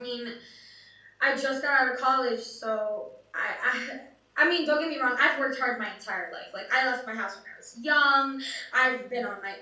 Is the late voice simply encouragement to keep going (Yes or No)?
Yes